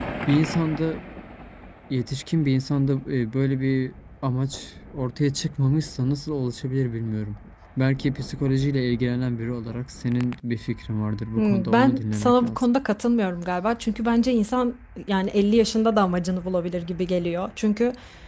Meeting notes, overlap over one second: present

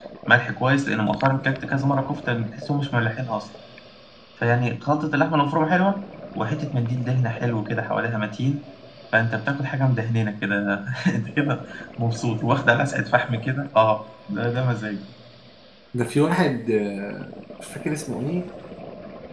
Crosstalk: none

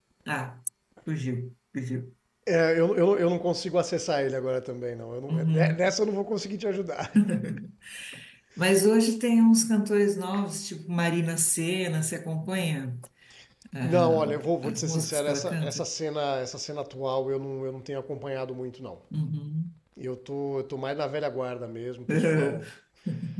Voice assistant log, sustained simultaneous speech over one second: present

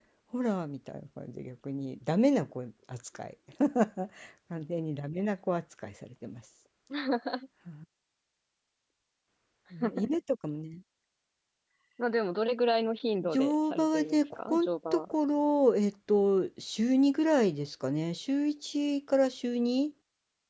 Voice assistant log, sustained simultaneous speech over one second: present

